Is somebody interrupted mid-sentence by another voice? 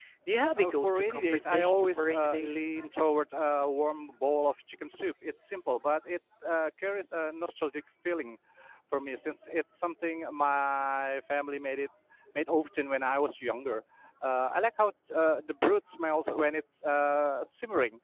Yes, from 0.6 s

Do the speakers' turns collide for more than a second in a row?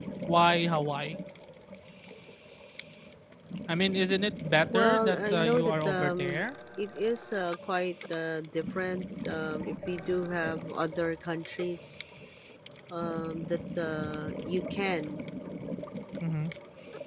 Yes, from 4.7 s

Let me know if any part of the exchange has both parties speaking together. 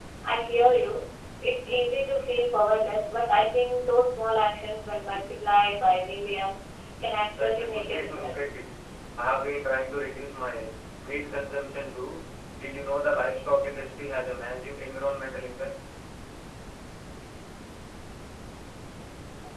Yes, from 7.3 s

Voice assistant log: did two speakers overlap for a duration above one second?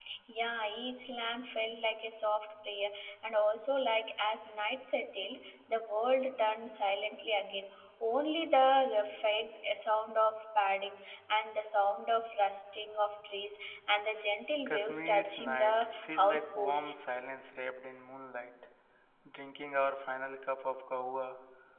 Yes, from 14.7 s

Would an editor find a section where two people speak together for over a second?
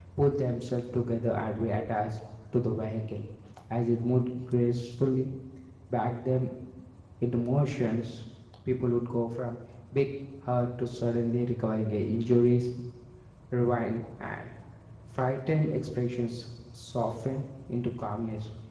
No

